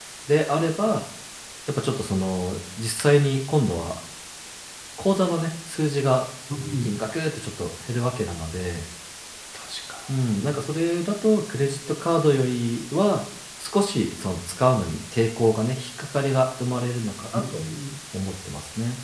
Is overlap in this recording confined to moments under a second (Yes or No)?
Yes